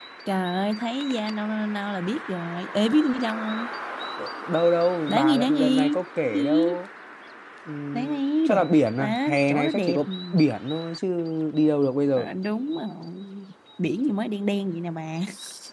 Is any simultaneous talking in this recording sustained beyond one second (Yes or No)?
Yes